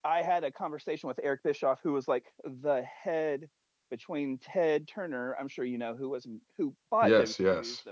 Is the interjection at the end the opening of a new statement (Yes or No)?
No